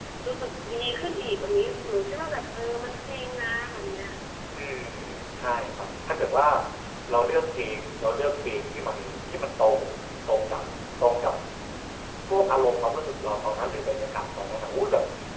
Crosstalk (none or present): none